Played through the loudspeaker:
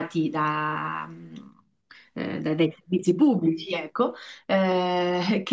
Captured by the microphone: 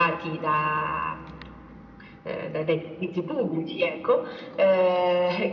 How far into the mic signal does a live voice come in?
none

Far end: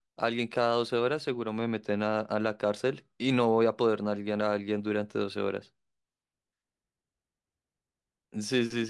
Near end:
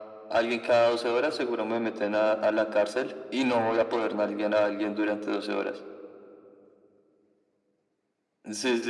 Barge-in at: none

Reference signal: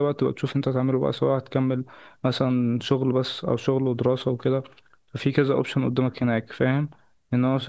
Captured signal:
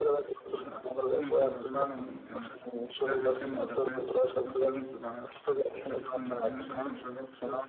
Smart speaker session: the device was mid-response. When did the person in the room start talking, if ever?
0.6 s

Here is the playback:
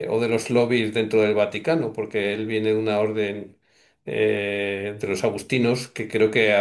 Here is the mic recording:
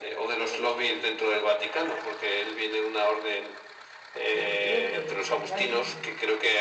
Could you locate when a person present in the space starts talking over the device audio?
4.3 s

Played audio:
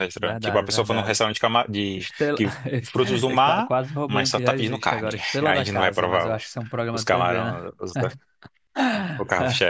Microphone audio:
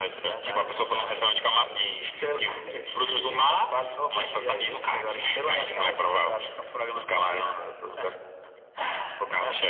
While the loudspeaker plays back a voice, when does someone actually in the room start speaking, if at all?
none

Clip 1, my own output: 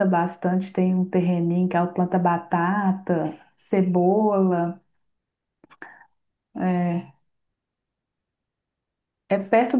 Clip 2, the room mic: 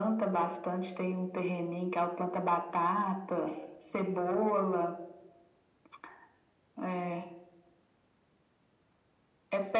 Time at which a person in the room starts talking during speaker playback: none

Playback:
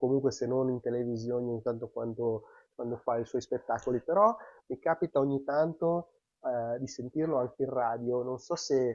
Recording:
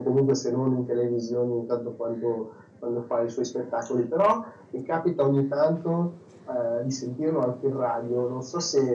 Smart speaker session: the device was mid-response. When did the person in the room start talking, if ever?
none

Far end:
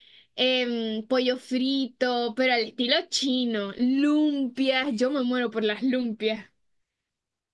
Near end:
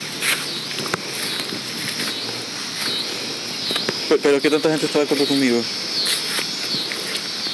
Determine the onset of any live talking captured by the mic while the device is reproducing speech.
4.1 s

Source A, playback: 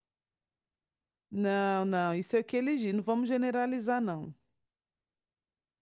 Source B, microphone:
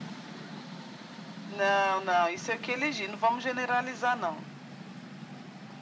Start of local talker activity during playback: none

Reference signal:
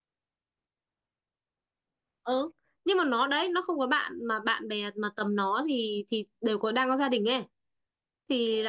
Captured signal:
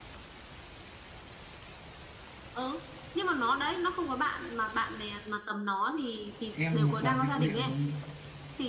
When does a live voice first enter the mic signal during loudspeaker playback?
6.5 s

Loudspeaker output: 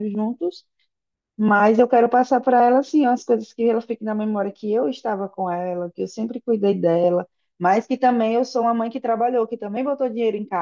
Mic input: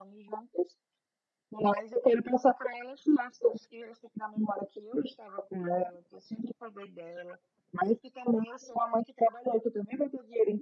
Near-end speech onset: none

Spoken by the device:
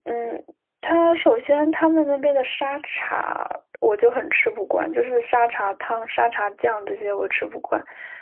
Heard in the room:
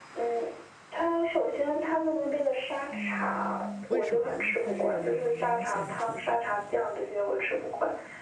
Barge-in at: 2.9 s

